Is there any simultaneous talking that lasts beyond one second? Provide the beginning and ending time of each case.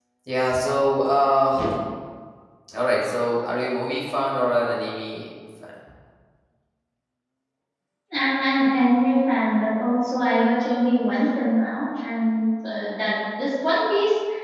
none

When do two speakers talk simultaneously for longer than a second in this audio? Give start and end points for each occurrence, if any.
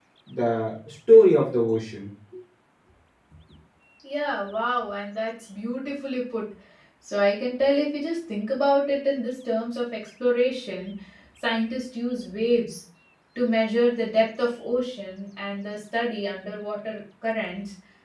none

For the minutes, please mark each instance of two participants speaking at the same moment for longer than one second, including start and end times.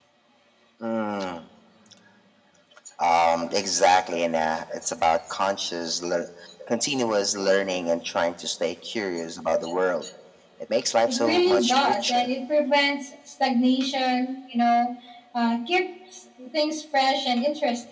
11.1-12.3

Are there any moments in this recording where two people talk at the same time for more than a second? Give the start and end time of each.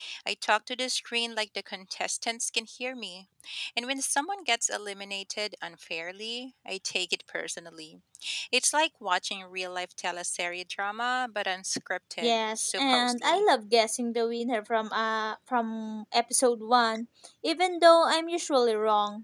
12.2-13.4

